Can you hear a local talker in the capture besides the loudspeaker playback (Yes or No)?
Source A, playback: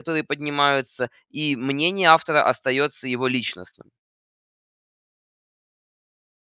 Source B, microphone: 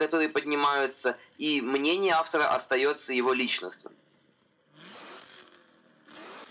No